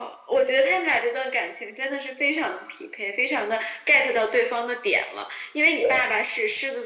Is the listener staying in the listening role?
Yes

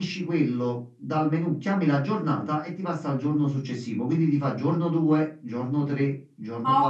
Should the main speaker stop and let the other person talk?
Yes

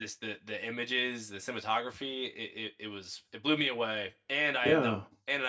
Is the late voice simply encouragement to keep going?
Yes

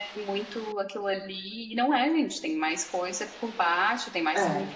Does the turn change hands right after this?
No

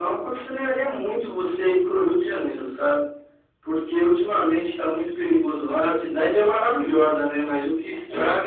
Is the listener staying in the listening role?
Yes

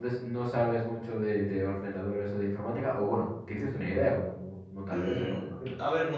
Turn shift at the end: Yes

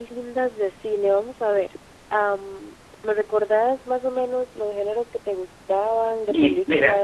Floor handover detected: Yes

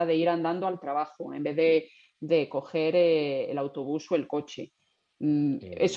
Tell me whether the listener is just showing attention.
Yes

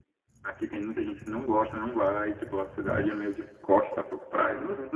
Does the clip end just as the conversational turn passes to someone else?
No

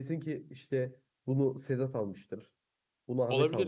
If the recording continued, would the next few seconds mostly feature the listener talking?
No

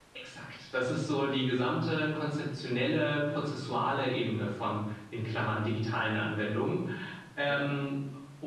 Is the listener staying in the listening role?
Yes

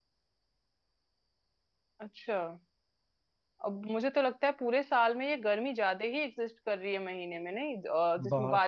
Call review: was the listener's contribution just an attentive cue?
Yes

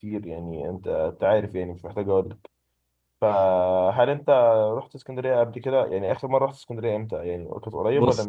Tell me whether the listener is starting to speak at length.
Yes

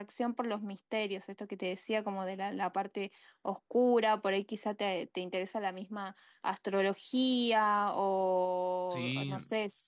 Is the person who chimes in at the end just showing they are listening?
Yes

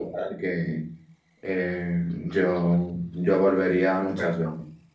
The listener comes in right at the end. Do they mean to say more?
Yes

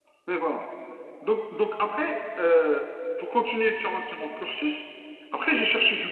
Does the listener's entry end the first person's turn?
No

